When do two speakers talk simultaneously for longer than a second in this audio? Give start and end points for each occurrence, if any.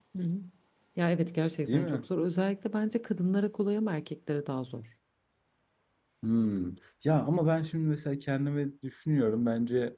none

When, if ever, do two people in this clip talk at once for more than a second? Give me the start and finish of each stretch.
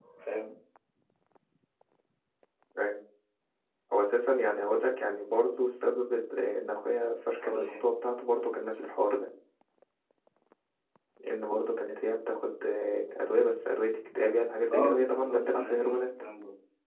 14.7-16.2

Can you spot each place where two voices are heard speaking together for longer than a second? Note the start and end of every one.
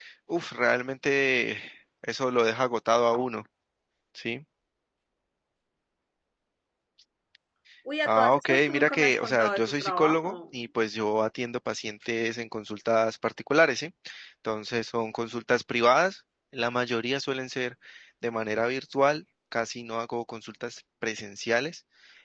8.1-10.3

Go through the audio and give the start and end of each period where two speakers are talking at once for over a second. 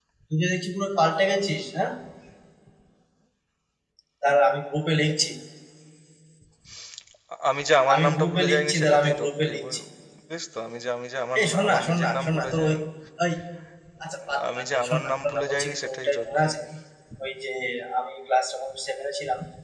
7.9-9.8, 11.4-12.8, 14.5-16.5

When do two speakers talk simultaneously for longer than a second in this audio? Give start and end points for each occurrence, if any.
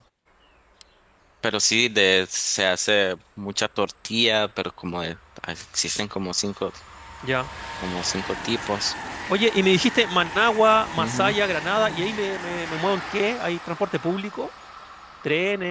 none

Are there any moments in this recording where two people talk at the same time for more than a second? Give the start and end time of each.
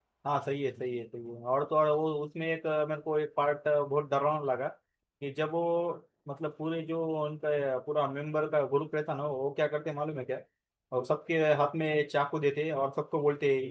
none

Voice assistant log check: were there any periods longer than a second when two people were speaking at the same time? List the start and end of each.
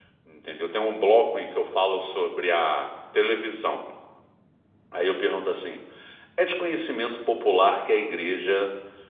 none

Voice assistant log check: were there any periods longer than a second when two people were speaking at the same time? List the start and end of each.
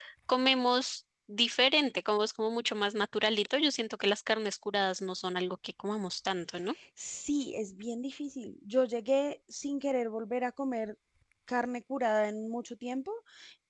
none

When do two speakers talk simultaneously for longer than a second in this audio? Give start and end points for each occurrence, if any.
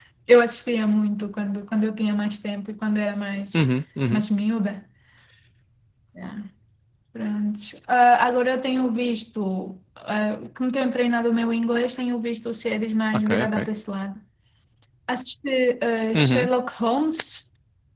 none

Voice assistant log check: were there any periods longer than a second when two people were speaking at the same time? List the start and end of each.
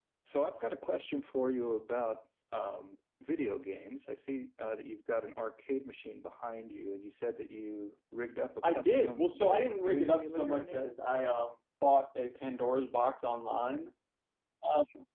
8.6-10.8

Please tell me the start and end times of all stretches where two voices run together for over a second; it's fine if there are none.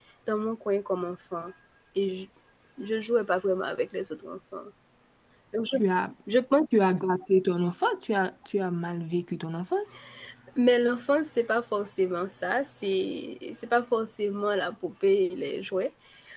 none

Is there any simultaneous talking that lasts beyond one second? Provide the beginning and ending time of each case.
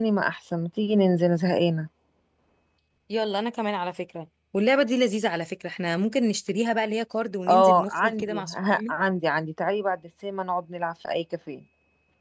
7.5-8.9

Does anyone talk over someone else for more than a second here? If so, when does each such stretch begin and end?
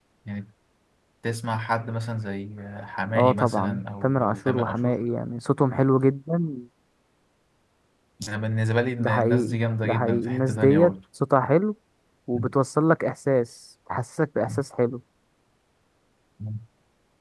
3.1-5.0, 9.0-10.9

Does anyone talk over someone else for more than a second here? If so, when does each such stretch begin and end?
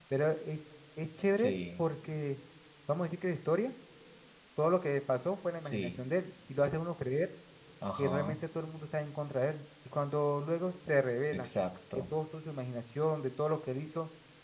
none

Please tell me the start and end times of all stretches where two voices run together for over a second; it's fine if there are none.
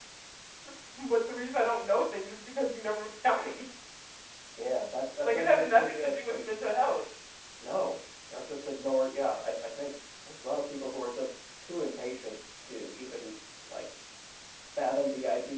5.2-6.4

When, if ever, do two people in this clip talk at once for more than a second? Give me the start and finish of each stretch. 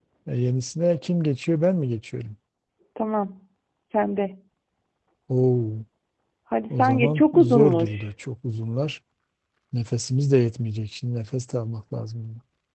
6.8-8.0

